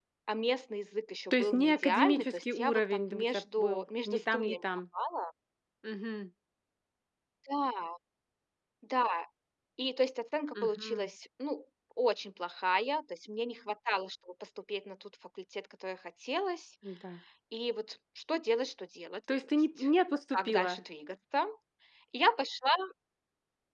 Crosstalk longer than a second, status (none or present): present